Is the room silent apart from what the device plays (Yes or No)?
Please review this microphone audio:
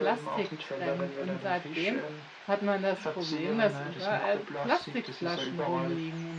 No